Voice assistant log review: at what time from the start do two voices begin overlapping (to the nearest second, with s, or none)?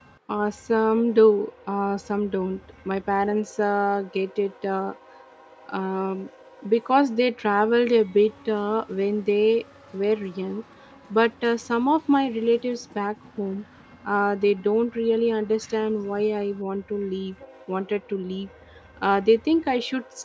none